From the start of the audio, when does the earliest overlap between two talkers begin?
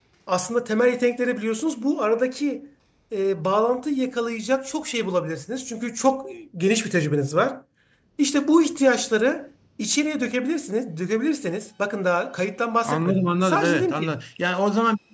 12.8 s

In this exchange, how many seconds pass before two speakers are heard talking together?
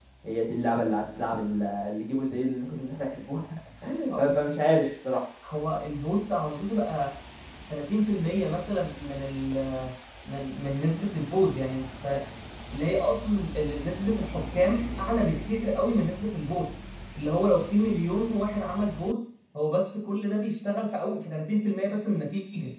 none

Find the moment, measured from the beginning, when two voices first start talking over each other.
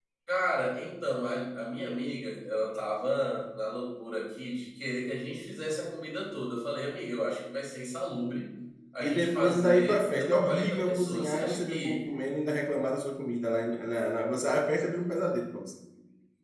9.0 s

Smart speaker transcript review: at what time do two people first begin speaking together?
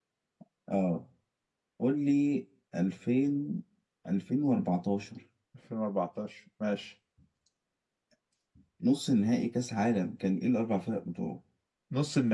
none

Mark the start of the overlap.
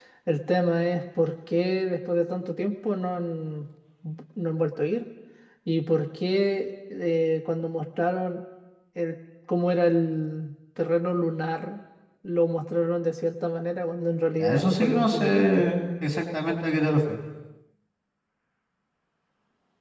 14.4 s

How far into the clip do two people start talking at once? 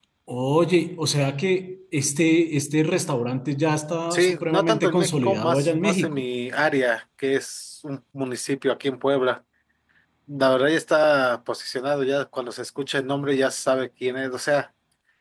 4.1 s

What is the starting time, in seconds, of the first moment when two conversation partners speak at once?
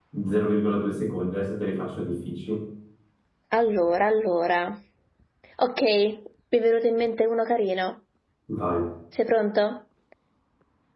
none

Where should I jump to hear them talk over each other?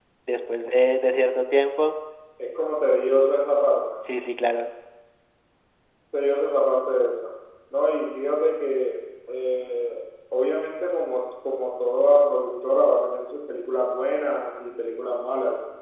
none

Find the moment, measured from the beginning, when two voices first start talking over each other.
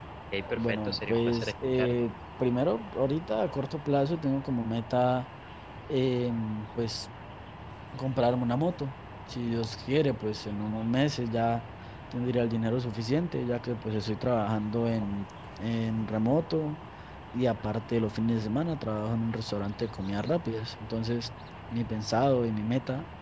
0.6 s

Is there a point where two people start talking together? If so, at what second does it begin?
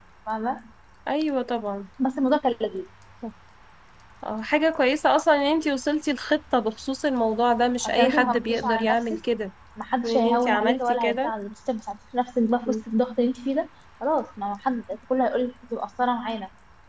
7.8 s

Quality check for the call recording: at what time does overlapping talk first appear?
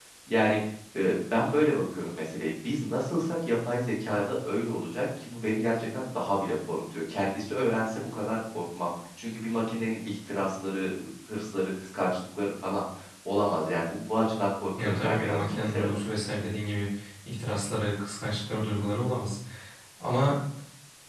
14.8 s

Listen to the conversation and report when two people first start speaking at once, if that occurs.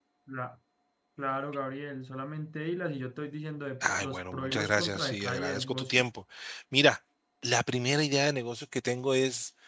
3.8 s

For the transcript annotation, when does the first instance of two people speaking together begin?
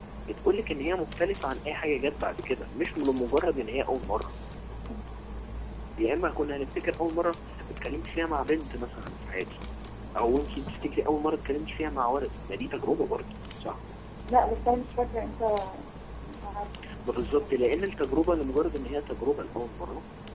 none

